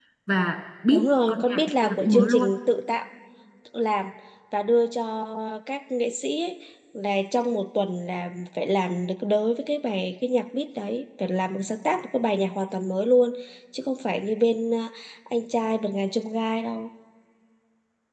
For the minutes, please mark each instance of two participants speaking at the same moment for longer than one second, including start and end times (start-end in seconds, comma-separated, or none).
0.9-2.5